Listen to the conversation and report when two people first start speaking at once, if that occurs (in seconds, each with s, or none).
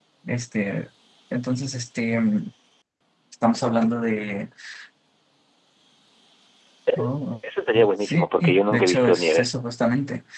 8.0 s